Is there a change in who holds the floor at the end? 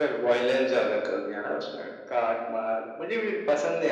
No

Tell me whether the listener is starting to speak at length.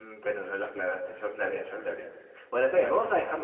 No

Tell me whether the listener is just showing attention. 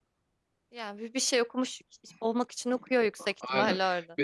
No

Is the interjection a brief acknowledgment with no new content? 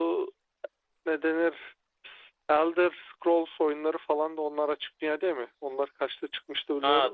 No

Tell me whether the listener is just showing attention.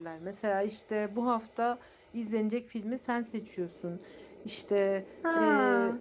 Yes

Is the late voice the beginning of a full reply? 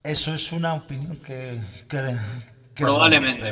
Yes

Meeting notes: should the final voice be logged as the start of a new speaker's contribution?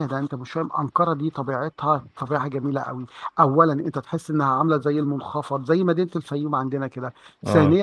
No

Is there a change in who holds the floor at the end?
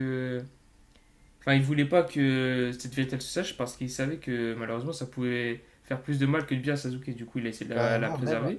Yes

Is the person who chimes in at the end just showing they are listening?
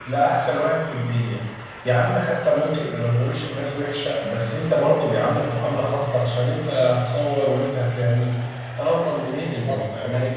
No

